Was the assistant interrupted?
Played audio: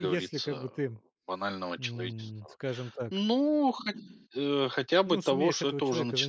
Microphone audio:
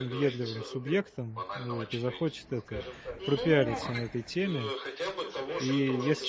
Yes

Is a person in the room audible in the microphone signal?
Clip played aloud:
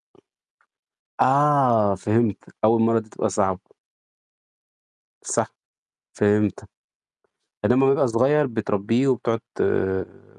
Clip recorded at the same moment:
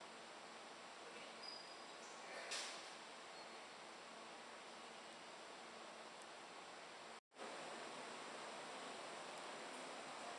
No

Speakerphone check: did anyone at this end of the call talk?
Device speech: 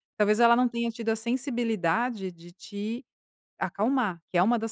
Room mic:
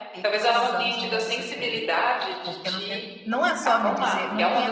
Yes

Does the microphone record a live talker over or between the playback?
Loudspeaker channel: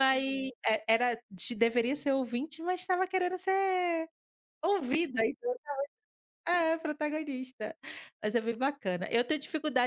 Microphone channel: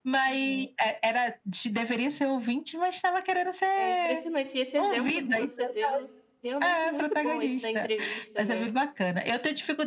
Yes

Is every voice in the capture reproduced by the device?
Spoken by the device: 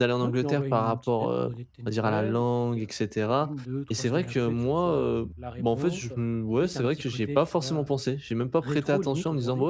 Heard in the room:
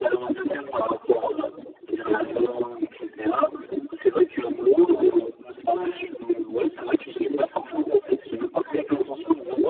No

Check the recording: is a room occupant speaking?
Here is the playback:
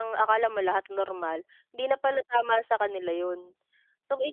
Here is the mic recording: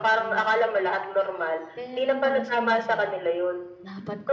Yes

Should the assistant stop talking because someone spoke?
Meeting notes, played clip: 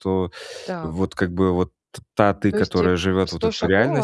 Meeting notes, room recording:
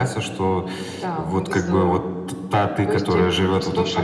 Yes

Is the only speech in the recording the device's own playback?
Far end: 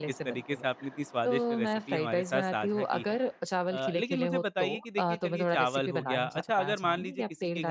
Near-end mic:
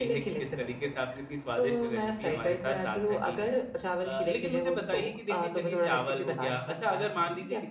Yes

